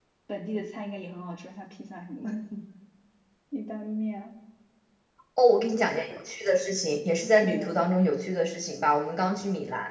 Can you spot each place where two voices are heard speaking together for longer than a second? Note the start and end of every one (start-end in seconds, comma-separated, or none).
none